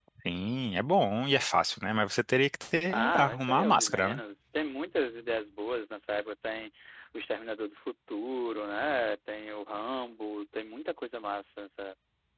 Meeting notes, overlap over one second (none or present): present